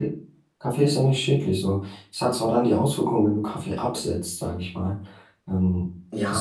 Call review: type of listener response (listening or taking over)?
taking over